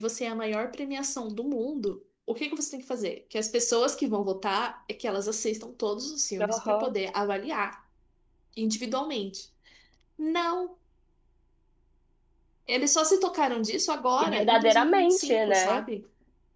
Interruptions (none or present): present